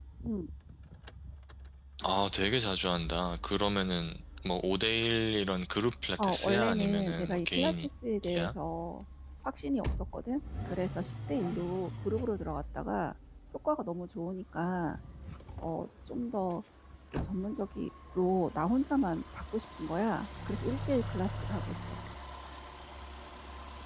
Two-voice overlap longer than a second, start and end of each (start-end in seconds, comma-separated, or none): 6.2-7.9